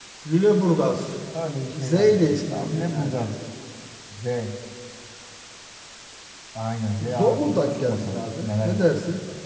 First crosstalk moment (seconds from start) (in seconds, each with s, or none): 1.7 s